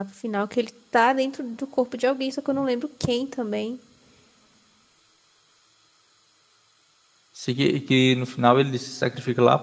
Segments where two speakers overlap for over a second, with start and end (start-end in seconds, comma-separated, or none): none